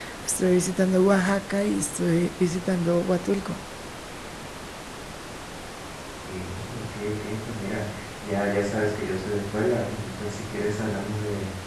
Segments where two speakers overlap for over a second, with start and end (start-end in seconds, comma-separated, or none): none